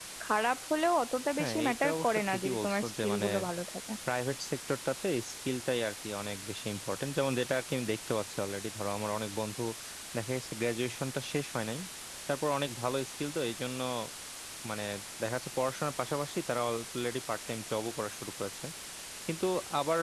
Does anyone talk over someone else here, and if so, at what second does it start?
1.4 s

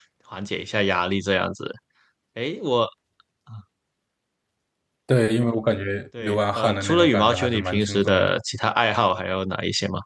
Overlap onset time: 6.1 s

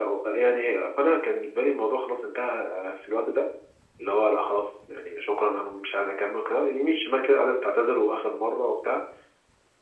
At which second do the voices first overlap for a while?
none

